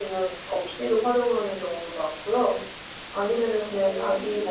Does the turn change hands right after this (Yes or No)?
No